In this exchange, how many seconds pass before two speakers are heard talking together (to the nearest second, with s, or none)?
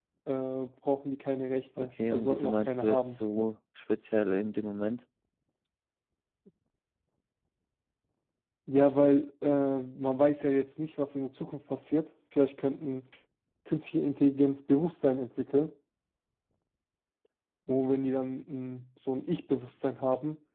2 s